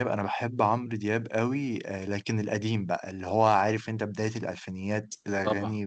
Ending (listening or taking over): listening